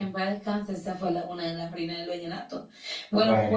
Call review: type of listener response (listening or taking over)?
listening